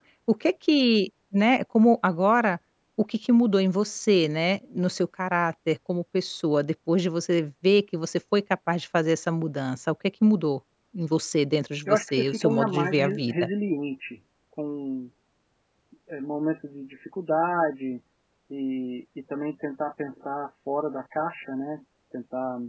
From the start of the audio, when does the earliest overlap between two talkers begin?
11.9 s

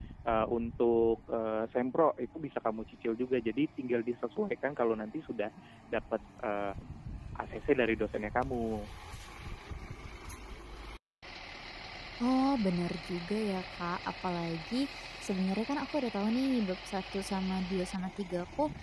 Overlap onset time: none

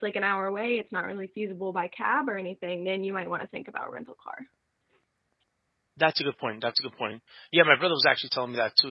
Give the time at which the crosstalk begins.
none

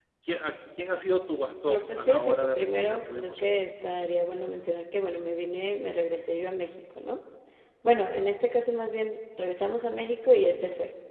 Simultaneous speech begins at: 1.7 s

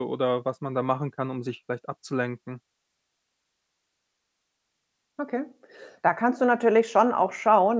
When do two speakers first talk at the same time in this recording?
none

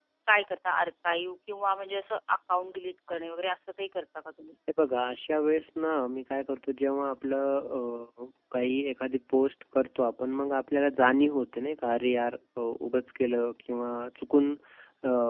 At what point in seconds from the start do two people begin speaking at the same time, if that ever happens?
none

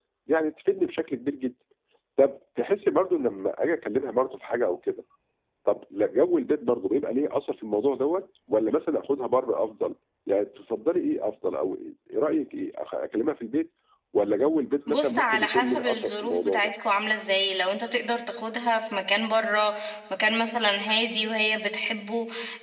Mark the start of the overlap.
14.9 s

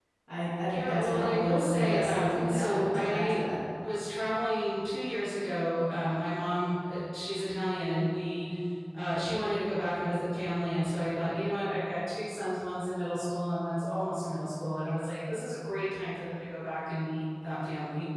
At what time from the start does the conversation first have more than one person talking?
0.7 s

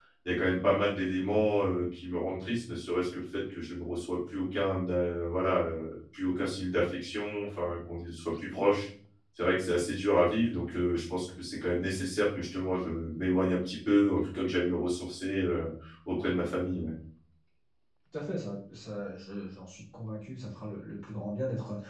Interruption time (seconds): none

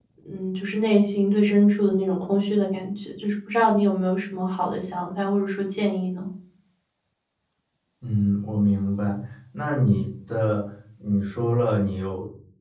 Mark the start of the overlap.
none

